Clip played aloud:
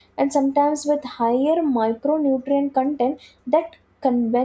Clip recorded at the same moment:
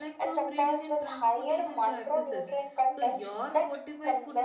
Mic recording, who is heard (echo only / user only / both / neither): both